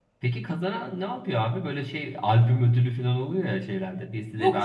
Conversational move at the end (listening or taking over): taking over